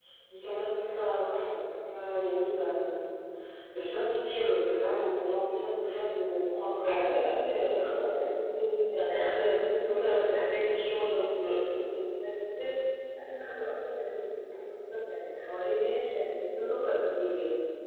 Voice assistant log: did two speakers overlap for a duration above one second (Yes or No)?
Yes